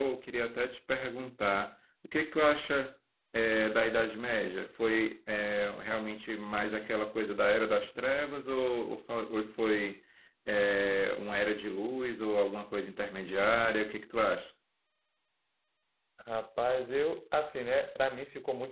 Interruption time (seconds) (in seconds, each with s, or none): none